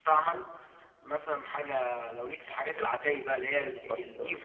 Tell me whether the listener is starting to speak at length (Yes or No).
No